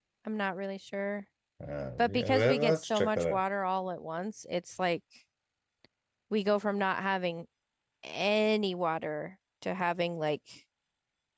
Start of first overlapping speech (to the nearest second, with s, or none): 2 s